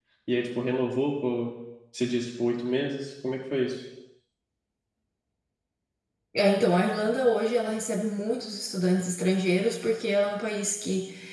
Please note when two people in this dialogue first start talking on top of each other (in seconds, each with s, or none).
none